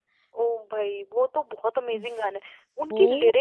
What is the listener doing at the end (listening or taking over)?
taking over